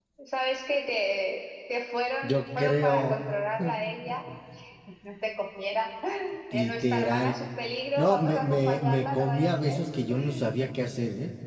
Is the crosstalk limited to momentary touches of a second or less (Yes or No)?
No